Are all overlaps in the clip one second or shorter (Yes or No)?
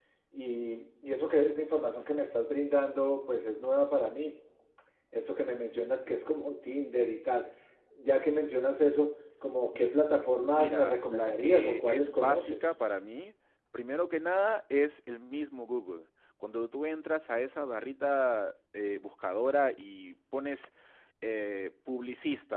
No